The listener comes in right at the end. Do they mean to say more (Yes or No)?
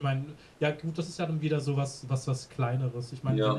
No